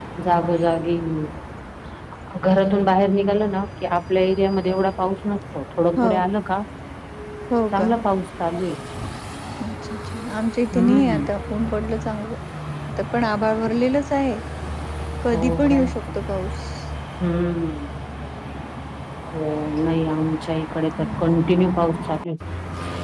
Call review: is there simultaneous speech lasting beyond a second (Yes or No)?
No